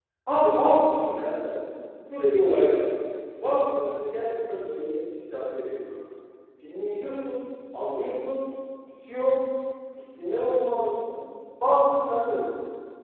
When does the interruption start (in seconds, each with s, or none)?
none